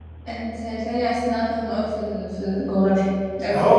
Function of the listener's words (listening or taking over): taking over